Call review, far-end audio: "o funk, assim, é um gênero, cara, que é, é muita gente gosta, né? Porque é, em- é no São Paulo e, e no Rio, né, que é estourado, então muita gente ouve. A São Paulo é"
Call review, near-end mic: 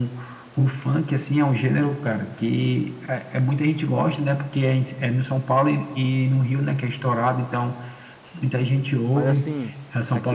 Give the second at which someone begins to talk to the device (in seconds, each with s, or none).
9.1 s